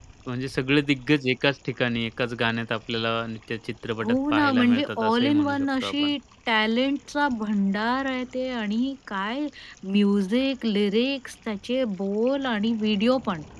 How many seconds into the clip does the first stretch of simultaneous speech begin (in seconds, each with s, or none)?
4.0 s